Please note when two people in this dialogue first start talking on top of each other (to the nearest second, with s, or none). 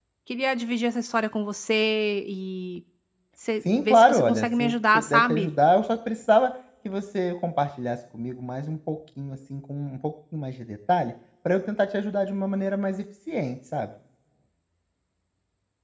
4 s